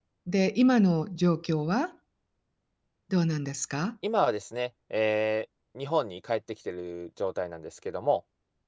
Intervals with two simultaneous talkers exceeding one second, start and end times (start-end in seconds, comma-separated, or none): none